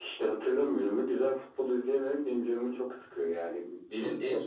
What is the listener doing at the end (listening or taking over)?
taking over